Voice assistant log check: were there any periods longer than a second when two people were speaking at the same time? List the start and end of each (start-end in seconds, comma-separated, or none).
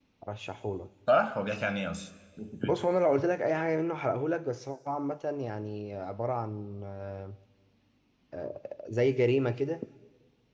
none